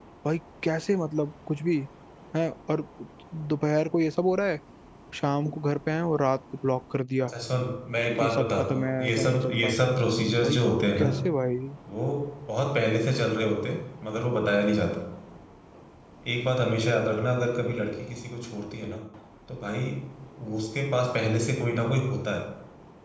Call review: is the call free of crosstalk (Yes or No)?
No